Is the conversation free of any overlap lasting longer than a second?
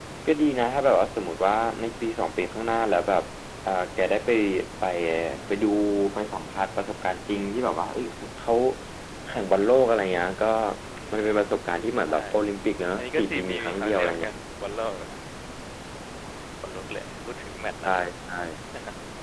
No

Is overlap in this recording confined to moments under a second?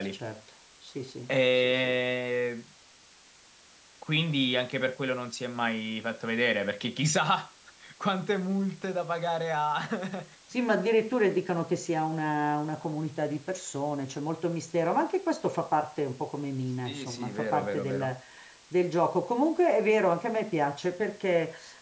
No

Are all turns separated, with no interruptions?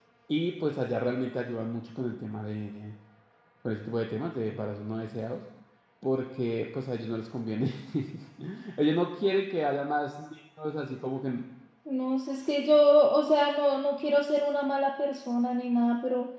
Yes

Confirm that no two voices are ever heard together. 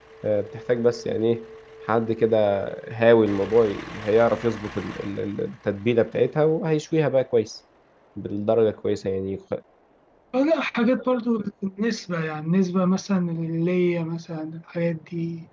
Yes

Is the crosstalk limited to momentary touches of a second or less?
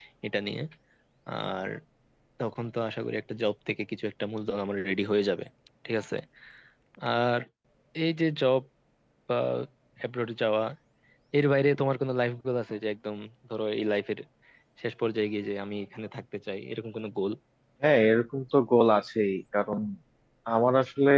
Yes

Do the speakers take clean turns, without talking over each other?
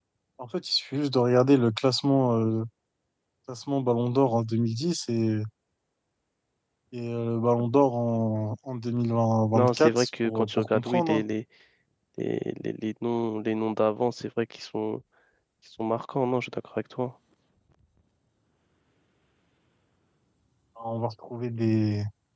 No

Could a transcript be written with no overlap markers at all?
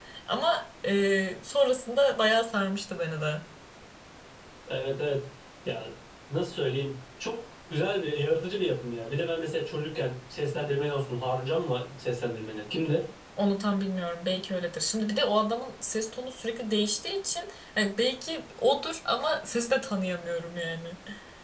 Yes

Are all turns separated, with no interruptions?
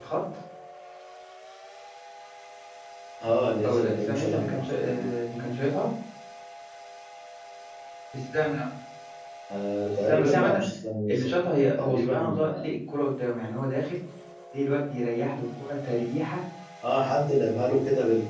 No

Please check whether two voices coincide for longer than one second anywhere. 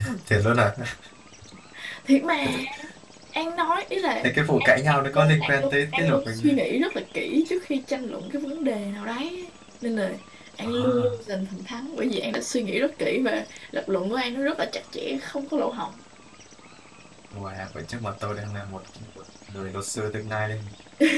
Yes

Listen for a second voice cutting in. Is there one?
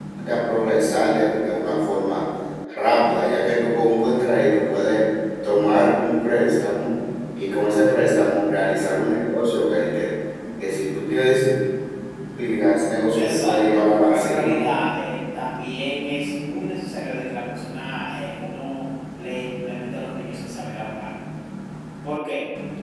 Yes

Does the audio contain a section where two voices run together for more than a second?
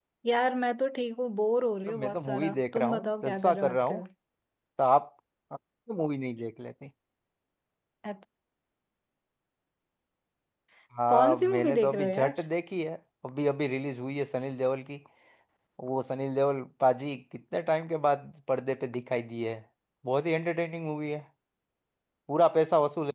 Yes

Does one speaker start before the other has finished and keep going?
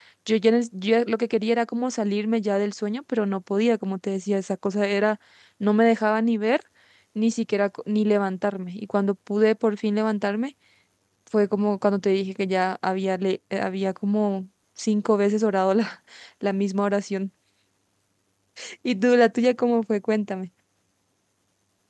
No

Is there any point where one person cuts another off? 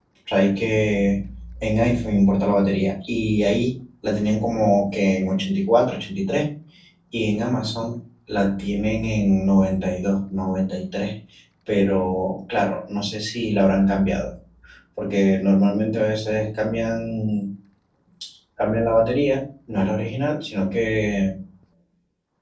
No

